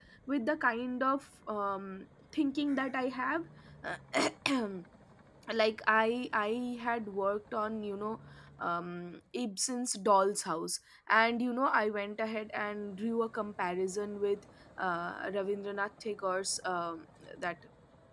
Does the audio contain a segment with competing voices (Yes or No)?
No